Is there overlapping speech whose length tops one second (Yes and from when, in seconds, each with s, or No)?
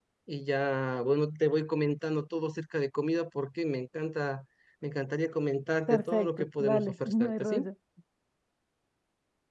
Yes, from 5.9 s